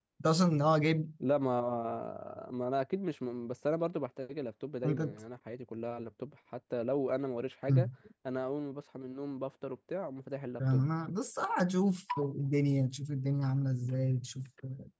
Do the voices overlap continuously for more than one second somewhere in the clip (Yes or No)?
No